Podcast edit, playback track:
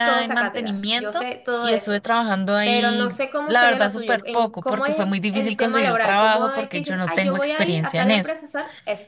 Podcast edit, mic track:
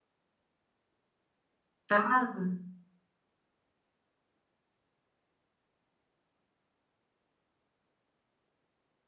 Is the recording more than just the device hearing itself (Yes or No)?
Yes